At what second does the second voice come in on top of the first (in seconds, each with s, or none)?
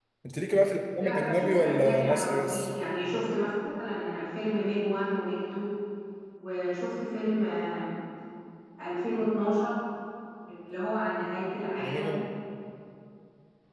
1.0 s